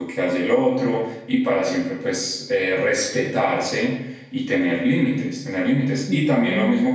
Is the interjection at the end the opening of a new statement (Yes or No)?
No